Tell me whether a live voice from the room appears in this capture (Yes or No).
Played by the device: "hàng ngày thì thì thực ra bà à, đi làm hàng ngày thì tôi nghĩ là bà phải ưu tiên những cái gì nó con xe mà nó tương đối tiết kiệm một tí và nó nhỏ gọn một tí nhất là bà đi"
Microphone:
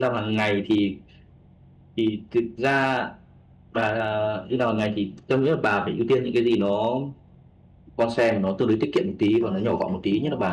Yes